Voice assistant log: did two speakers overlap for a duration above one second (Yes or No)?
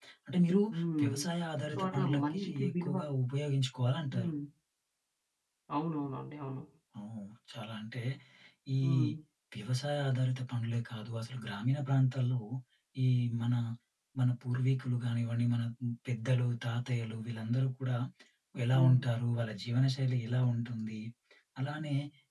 Yes